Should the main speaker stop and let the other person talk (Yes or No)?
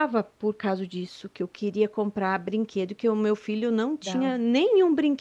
No